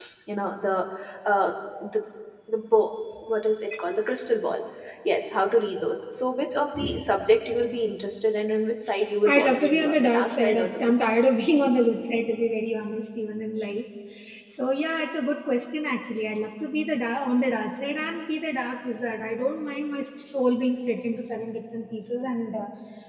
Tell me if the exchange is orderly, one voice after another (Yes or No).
No